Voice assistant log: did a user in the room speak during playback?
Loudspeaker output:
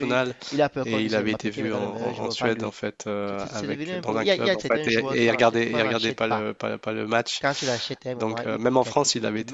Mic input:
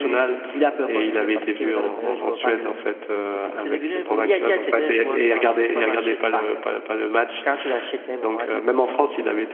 No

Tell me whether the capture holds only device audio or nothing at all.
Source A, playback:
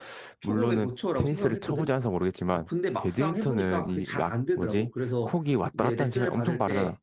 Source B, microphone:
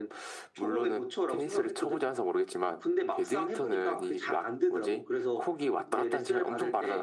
Yes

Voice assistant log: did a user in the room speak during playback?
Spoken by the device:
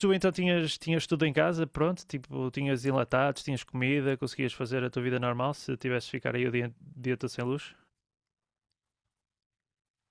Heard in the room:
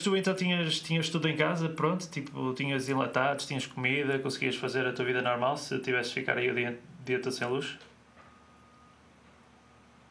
No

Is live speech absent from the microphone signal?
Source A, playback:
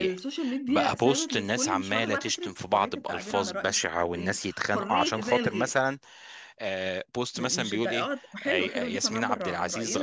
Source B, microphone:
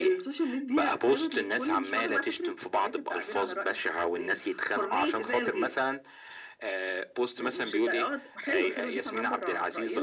Yes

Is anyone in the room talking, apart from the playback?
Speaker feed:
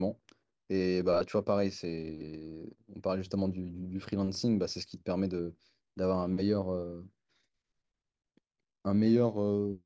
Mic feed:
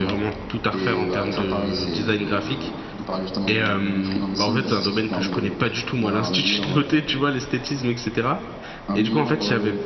Yes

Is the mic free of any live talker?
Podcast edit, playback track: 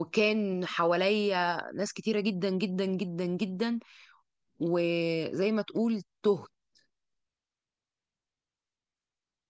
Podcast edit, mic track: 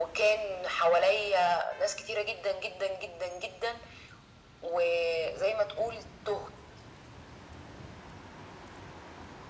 Yes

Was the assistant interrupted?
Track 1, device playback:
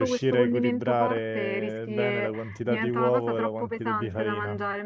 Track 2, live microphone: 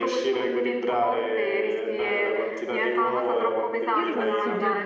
Yes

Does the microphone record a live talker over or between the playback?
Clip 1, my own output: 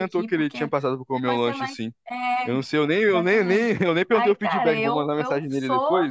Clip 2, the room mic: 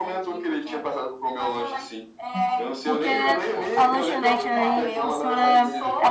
Yes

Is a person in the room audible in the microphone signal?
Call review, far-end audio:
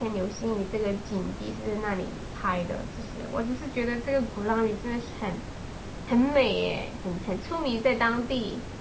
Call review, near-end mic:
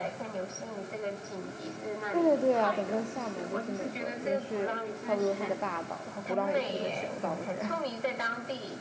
Yes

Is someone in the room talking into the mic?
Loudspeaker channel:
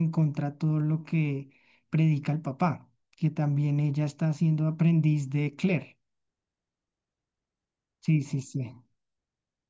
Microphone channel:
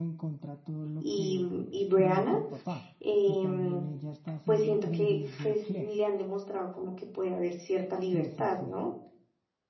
Yes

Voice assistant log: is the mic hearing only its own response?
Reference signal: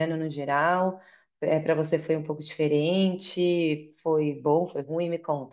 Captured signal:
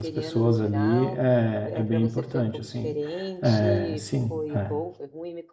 No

